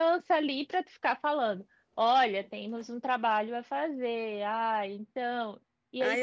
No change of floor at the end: No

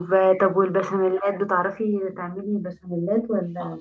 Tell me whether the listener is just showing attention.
No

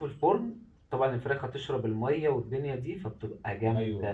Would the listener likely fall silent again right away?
Yes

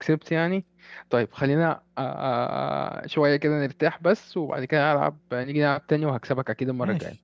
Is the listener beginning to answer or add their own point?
Yes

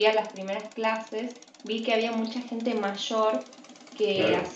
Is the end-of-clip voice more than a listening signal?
No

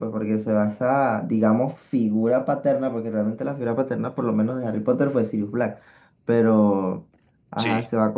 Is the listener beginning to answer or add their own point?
No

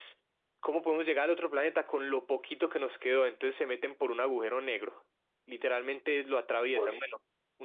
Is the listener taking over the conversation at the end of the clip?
No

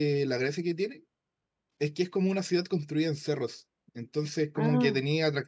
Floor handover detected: No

